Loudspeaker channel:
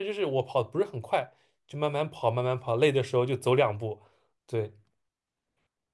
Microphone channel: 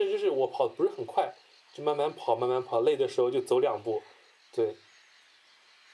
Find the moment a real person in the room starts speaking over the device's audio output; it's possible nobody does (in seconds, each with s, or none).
none